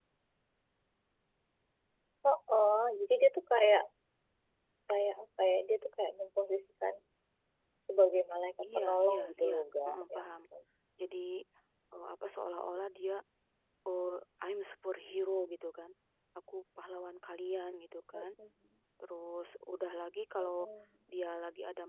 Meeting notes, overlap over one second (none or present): present